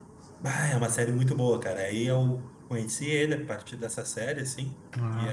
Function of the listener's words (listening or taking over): listening